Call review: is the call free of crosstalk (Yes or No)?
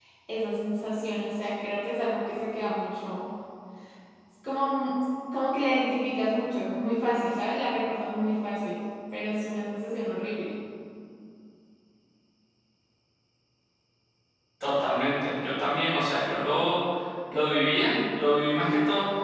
Yes